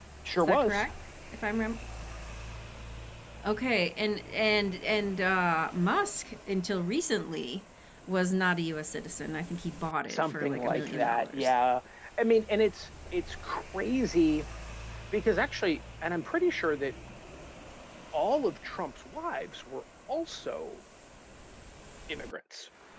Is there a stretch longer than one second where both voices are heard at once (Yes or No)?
Yes